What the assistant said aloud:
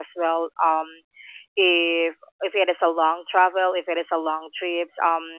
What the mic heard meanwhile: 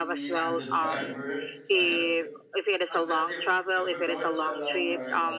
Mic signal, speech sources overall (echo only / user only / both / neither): both